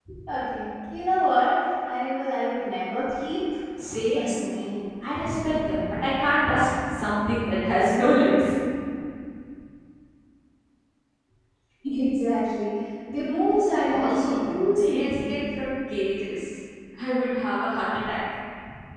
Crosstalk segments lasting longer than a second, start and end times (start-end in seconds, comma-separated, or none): 13.8-15.4